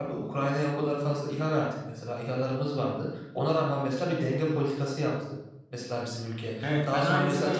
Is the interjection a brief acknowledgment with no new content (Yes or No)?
No